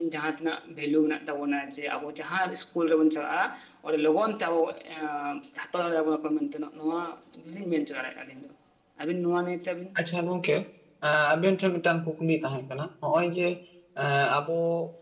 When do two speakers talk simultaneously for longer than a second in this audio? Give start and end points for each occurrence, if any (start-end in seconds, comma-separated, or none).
none